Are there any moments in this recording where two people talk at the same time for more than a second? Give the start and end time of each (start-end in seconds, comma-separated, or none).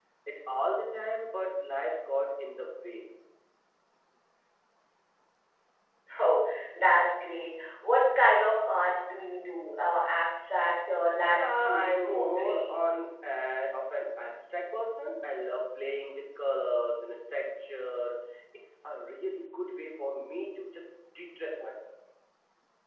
11.3-12.8